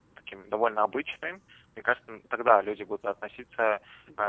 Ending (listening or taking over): listening